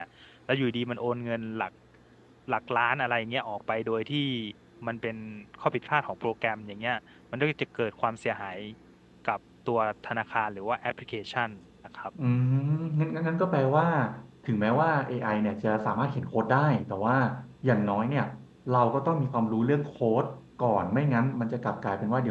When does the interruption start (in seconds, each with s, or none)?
none